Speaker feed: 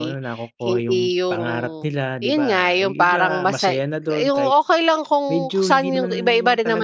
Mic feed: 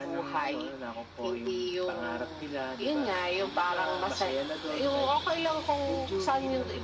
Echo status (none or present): present